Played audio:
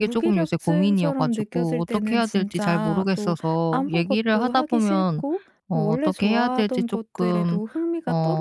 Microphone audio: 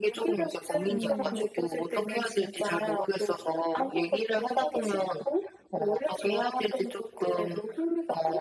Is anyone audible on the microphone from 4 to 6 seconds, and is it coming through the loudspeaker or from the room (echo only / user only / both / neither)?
echo only